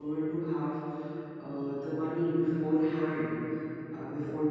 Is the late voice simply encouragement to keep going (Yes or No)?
Yes